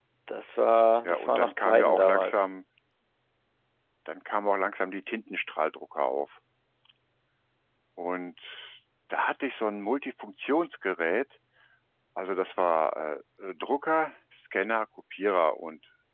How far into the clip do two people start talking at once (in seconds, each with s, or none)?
1.0 s